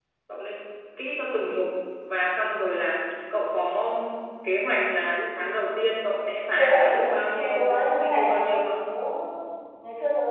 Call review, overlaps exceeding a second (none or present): present